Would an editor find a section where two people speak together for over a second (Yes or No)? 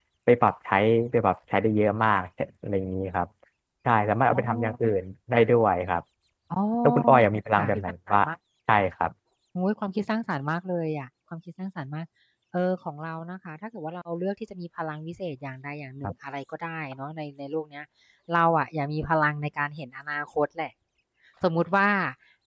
No